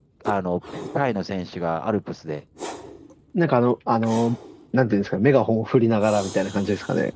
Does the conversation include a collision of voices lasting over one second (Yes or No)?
No